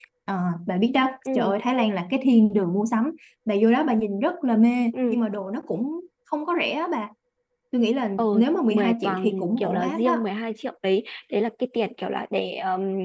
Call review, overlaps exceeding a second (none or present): present